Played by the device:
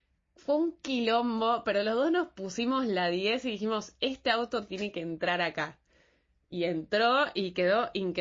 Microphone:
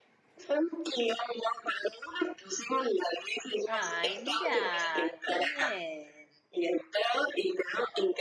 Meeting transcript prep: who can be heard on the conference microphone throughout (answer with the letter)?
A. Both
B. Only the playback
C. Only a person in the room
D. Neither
A